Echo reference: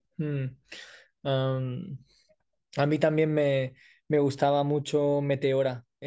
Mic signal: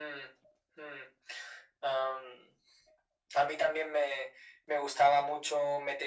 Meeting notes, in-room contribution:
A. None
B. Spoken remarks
A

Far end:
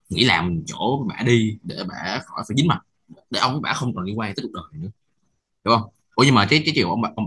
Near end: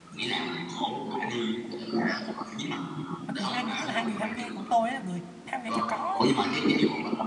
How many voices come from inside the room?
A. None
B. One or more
B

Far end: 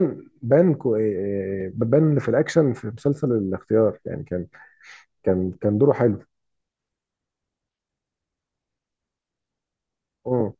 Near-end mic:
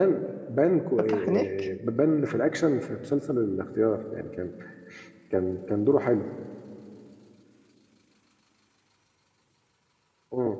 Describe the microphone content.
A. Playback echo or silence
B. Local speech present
B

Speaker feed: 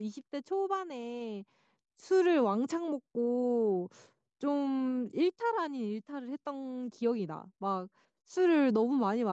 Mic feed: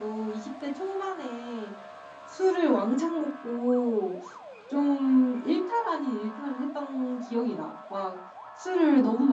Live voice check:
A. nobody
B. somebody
A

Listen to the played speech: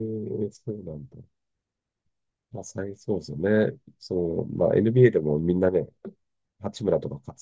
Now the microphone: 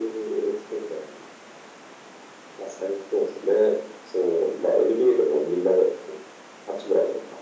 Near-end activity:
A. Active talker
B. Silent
B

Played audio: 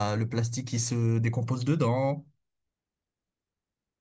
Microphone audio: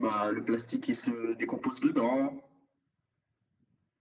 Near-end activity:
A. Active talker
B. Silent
B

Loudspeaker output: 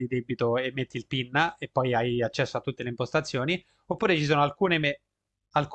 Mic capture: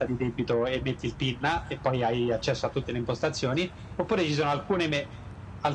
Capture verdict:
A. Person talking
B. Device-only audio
B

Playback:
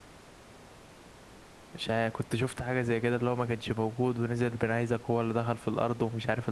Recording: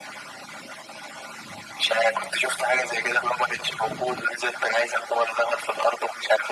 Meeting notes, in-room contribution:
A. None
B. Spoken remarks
A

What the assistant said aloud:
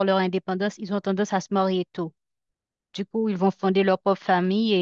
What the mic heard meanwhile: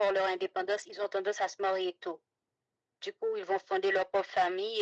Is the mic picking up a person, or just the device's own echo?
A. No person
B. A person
A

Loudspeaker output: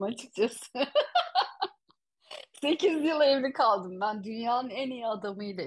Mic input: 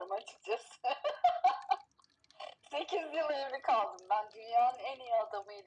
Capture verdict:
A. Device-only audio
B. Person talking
A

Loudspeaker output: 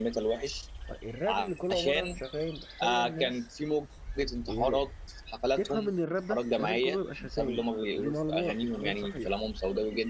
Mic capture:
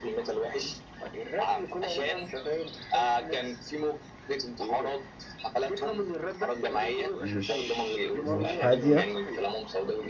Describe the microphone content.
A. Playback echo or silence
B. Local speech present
B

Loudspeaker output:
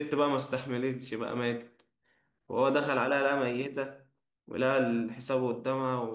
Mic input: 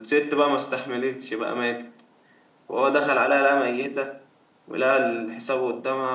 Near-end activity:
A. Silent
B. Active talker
A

